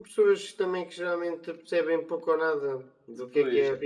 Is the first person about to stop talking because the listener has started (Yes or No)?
No